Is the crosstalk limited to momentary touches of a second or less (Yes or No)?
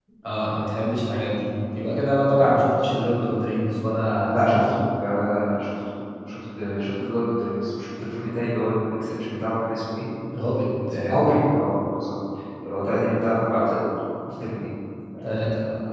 Yes